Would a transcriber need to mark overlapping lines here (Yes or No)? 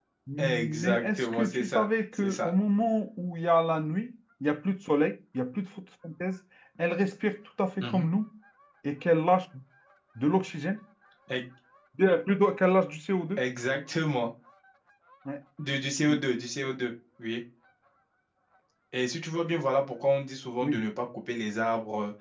Yes